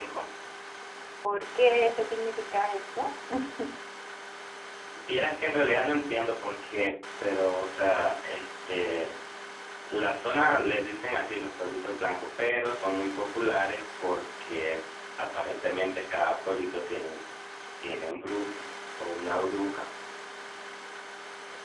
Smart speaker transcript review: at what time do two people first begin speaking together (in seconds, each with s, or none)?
none